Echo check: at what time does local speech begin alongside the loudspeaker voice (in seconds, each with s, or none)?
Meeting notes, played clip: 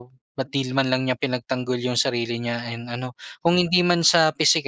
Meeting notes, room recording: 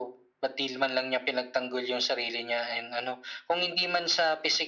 none